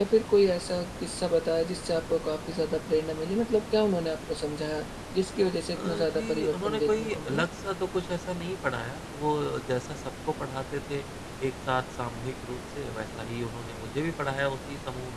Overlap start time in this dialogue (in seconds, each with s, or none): 5.7 s